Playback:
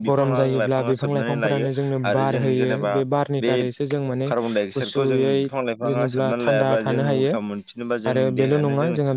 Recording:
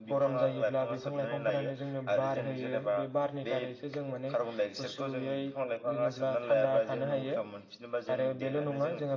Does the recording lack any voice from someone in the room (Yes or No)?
Yes